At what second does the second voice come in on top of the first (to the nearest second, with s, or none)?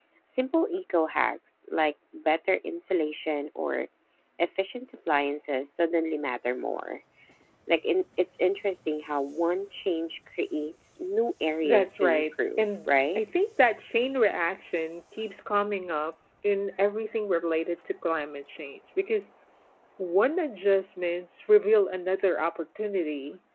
12 s